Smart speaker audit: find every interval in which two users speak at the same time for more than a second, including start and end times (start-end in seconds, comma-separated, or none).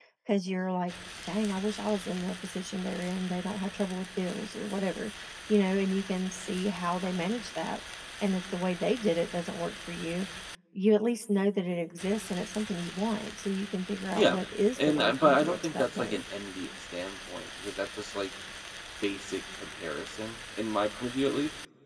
14.8-16.2